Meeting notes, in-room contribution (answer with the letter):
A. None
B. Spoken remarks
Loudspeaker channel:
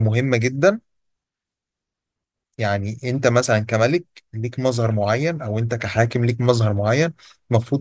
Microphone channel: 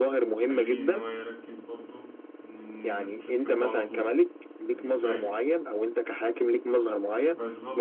B